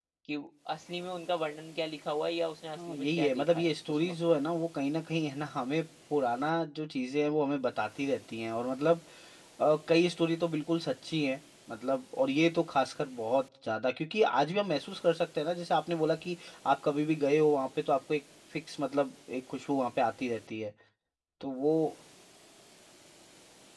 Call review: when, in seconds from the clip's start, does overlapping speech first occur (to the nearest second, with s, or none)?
3 s